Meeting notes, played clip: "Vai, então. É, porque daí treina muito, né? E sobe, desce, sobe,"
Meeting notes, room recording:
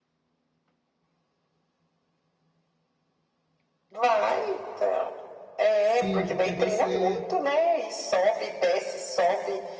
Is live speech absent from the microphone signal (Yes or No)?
No